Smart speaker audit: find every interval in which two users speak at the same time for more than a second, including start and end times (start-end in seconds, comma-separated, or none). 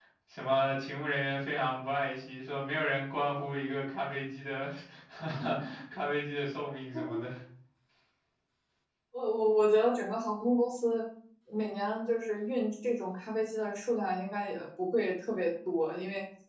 none